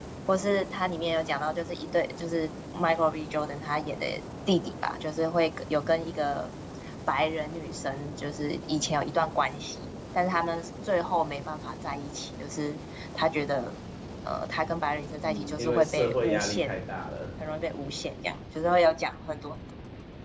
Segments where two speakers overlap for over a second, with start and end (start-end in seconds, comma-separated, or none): 15.2-16.7